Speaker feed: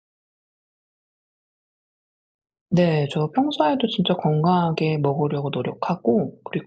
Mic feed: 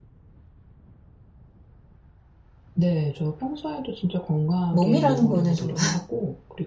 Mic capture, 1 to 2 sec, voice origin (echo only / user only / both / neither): neither